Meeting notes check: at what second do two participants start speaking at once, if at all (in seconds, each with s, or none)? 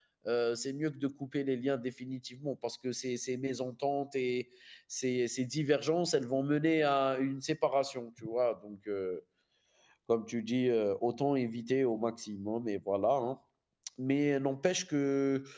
none